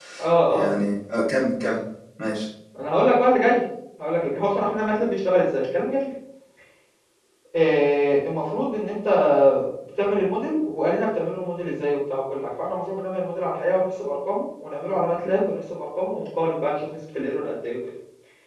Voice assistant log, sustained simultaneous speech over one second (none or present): none